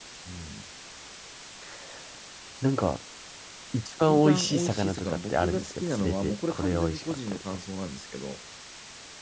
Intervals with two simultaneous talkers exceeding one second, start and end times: 4.1-7.4

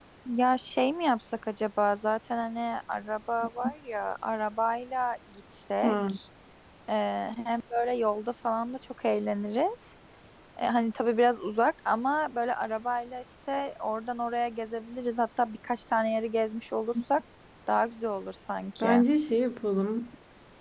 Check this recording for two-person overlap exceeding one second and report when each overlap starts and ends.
none

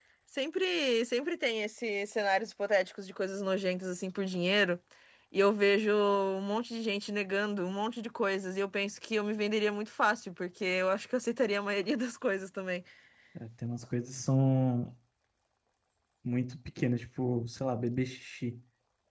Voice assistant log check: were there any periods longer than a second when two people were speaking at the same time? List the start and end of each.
none

